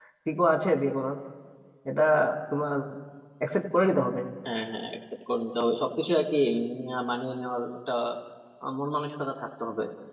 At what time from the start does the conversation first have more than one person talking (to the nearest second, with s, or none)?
none